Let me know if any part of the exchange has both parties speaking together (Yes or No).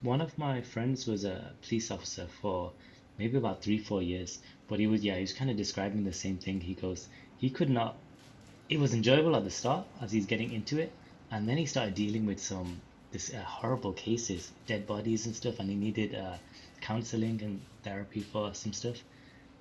No